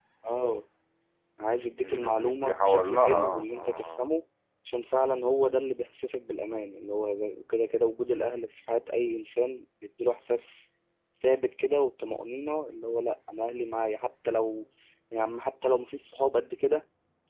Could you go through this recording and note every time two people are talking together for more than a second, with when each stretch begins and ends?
1.8-4.0

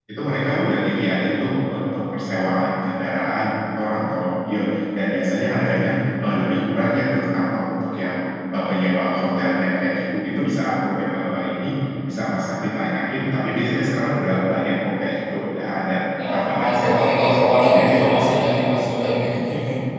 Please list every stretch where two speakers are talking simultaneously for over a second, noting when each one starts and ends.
16.3-18.4

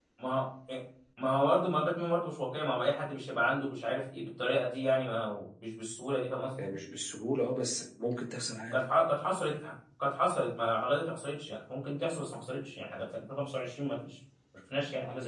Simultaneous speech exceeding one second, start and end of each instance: none

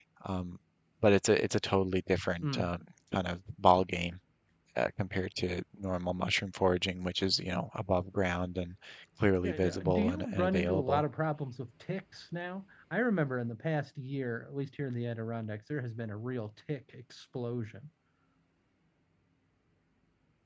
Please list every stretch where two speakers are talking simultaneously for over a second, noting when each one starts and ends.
9.4-11.0

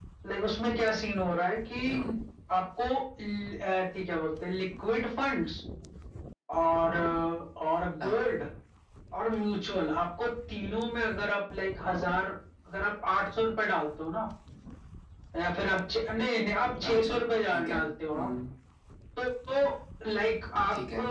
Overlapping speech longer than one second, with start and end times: 16.9-18.3

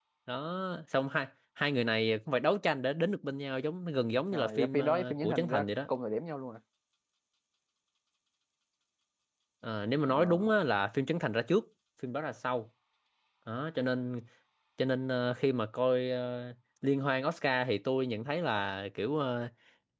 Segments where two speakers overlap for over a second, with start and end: 4.3-5.6

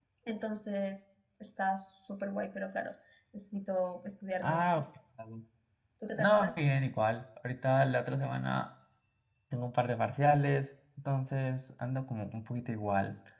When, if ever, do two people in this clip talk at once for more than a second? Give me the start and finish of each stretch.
none

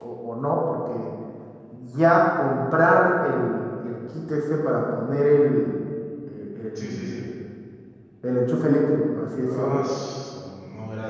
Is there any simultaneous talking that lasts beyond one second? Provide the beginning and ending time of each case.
none

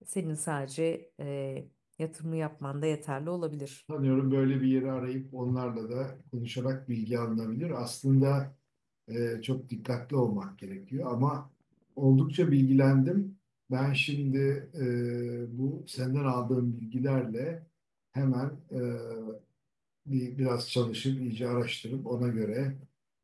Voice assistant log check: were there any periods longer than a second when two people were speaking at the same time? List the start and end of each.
none

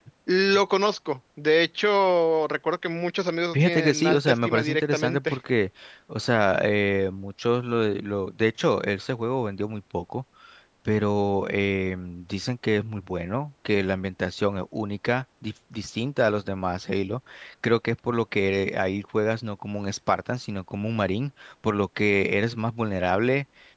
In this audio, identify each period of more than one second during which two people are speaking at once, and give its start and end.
3.5-5.4

